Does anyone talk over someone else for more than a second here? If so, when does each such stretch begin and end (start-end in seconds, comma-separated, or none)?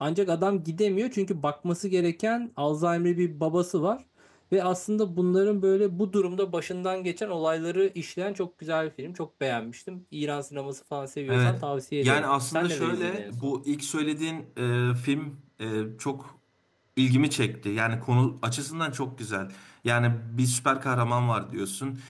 12.0-13.5